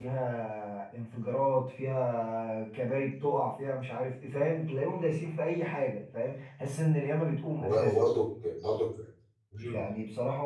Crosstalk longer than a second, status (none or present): none